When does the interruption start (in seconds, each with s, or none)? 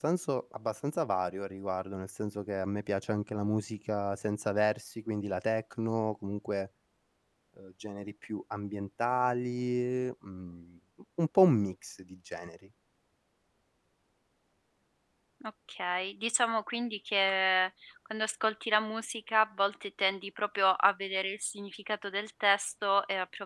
none